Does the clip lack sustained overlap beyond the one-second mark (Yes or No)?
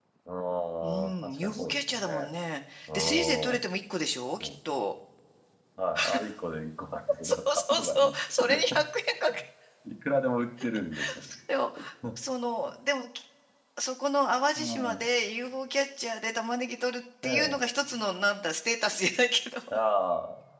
No